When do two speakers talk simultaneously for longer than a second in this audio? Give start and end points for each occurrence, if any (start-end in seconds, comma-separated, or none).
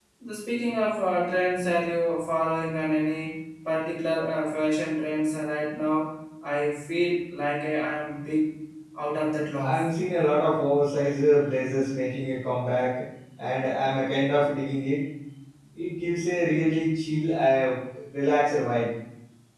none